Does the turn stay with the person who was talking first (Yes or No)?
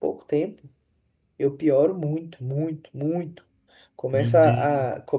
Yes